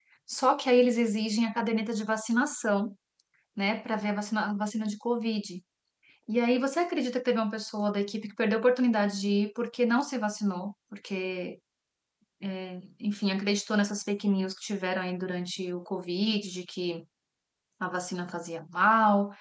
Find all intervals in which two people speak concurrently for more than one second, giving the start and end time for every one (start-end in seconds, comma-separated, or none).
none